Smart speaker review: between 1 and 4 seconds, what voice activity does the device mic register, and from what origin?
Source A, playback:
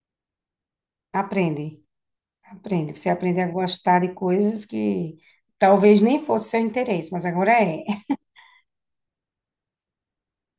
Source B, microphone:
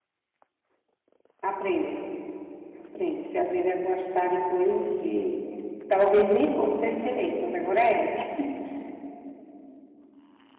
echo only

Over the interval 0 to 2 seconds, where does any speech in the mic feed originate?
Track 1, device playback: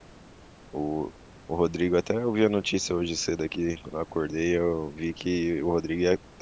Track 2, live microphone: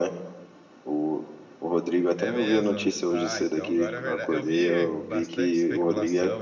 echo only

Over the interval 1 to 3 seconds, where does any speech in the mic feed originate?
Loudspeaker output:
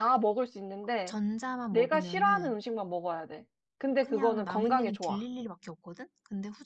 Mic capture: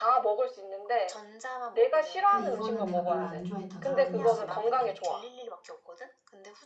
both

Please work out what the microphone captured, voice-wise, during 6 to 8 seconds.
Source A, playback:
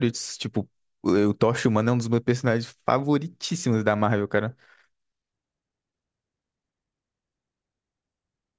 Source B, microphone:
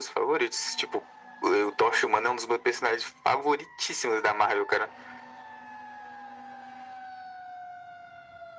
neither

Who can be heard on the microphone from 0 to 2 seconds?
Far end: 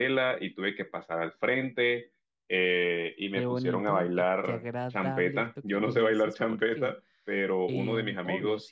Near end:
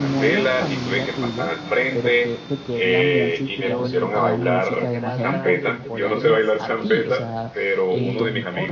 both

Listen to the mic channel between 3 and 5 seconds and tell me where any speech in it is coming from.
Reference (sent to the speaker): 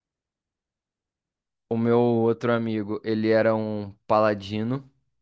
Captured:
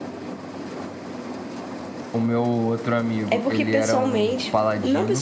both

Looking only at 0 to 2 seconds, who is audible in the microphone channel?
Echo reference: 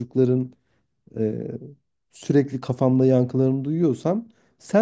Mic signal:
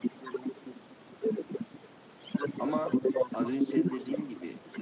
echo only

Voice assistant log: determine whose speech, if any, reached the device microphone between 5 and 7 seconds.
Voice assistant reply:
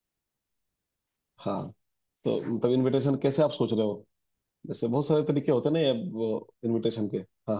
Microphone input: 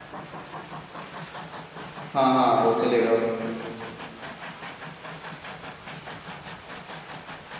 neither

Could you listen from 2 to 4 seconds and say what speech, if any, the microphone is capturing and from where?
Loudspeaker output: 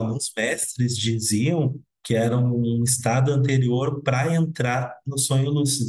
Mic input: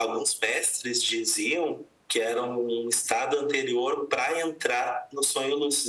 echo only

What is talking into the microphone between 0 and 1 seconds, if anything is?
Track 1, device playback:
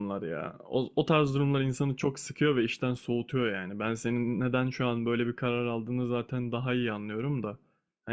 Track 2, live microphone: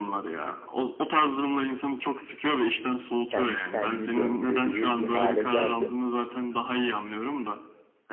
echo only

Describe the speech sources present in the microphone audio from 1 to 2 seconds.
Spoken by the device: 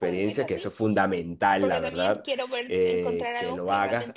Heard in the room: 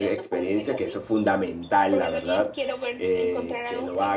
echo only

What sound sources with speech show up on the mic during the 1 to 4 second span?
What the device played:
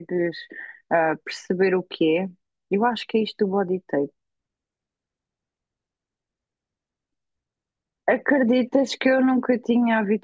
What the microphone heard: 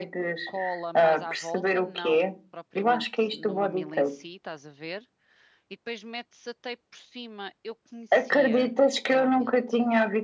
both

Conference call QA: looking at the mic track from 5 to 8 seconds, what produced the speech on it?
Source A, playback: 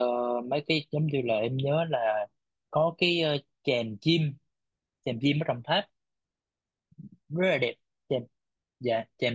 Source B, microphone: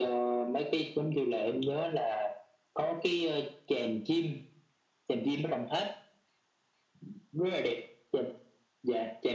echo only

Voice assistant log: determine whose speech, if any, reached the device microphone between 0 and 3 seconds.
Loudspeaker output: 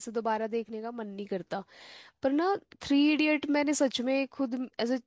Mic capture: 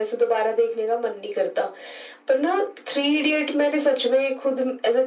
echo only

